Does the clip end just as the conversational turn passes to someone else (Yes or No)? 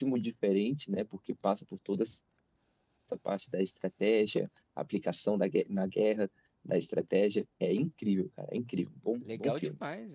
Yes